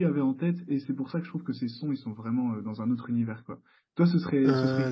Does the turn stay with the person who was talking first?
Yes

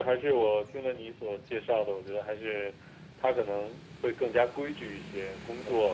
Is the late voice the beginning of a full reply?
No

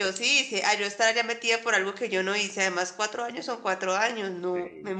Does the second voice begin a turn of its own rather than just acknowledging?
Yes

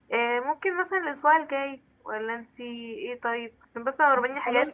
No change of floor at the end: Yes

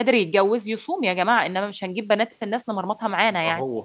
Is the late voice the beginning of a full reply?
Yes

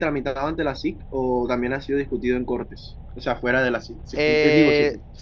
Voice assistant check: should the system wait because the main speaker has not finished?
No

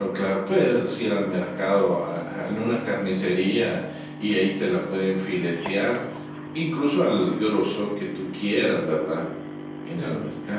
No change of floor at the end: Yes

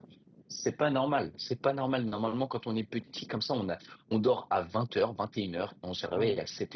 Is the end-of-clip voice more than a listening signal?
No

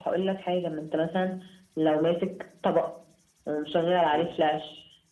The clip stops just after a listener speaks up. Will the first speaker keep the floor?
Yes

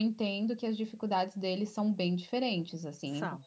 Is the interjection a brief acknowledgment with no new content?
Yes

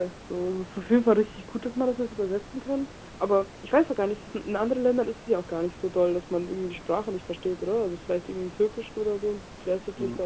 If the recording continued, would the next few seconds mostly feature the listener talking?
Yes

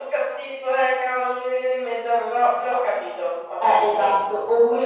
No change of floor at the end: No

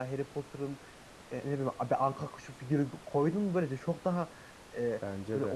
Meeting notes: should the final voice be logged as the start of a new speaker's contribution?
No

